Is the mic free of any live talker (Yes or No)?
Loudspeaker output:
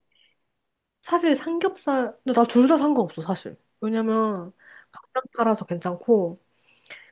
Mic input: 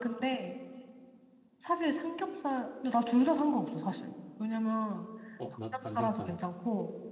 No